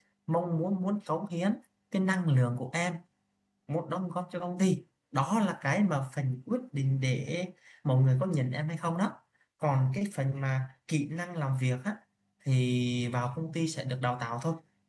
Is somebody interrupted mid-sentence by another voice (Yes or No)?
No